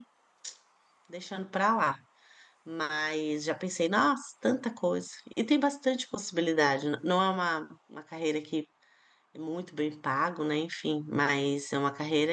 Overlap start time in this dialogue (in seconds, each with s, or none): none